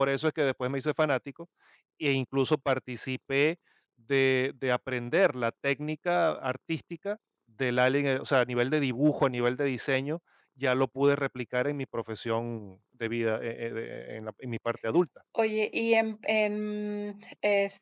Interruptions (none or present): none